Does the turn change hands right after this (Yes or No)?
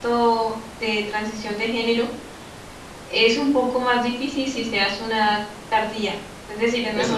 Yes